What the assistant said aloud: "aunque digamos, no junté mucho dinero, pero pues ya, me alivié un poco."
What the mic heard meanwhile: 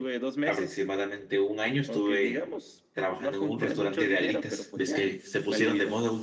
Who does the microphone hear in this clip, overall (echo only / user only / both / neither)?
both